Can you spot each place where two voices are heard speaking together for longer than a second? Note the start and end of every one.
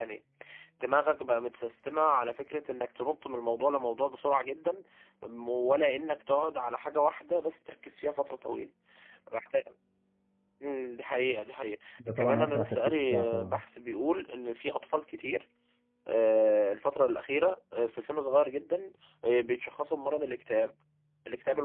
12.2-13.6

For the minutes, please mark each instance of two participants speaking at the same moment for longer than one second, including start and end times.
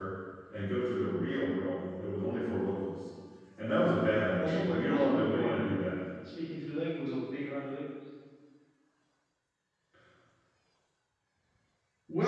4.4-5.7

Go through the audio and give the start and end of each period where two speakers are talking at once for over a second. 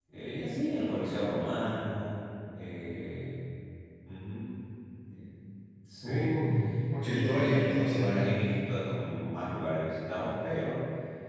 7.0-8.3

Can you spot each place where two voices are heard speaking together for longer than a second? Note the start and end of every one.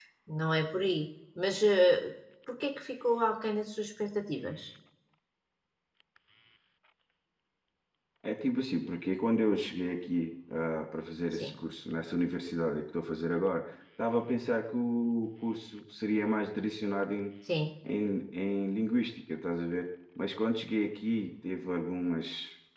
none

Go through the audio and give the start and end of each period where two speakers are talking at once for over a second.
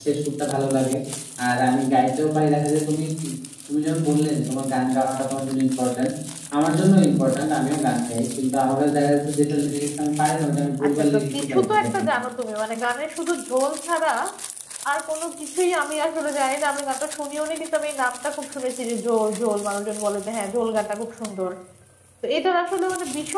10.8-12.0

